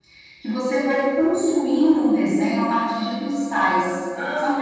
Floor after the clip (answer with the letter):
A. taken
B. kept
B